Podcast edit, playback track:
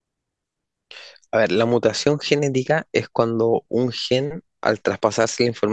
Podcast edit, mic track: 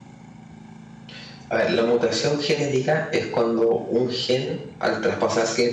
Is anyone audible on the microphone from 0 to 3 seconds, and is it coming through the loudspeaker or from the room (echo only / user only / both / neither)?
echo only